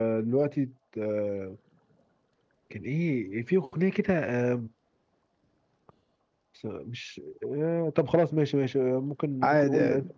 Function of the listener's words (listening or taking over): listening